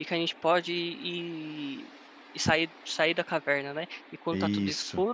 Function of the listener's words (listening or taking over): listening